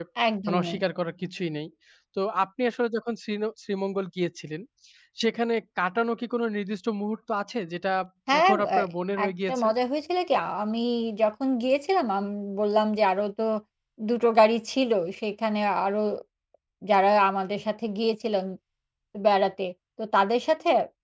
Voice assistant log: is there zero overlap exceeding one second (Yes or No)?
Yes